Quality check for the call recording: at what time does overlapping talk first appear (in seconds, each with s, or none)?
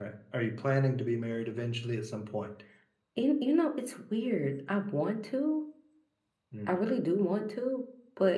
none